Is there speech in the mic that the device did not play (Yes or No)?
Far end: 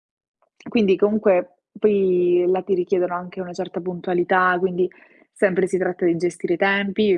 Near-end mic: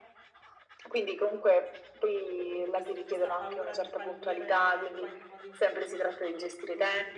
Yes